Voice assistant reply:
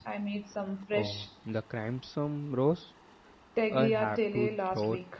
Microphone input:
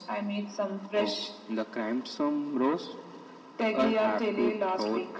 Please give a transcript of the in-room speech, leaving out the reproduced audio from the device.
none

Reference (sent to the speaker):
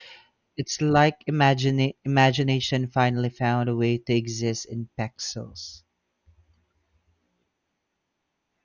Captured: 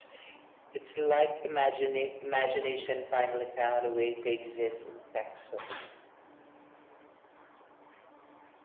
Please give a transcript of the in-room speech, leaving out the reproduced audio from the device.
none

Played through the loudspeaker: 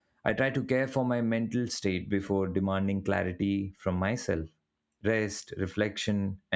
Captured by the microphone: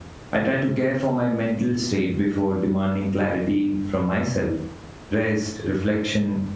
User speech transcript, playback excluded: none

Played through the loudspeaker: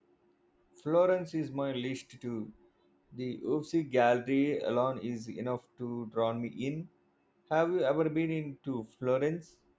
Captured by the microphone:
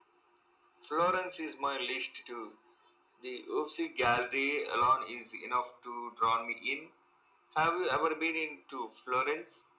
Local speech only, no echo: none

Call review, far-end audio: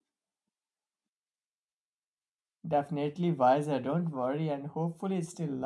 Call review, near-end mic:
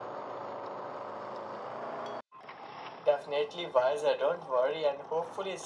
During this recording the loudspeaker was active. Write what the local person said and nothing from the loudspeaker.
none

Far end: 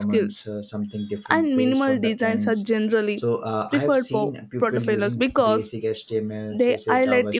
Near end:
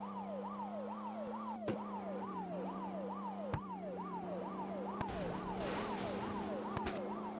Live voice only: none

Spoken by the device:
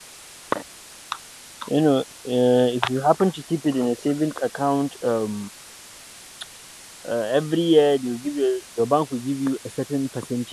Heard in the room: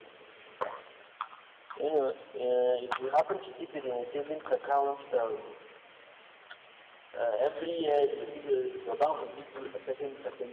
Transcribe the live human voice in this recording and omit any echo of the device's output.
none

